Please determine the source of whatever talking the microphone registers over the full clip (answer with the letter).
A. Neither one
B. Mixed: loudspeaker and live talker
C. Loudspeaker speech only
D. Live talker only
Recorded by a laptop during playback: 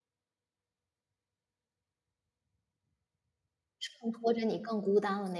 D